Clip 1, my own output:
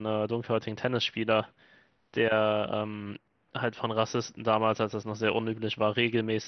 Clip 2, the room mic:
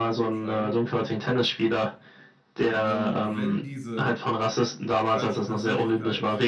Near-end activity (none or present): present